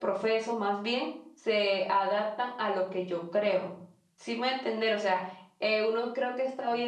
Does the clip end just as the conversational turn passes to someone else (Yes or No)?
No